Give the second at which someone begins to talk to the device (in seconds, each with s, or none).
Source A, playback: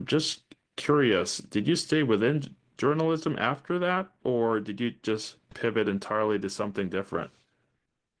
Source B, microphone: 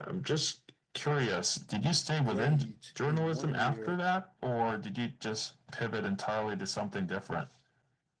2.2 s